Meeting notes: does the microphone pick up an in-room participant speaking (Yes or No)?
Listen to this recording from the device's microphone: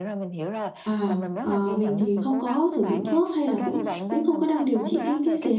Yes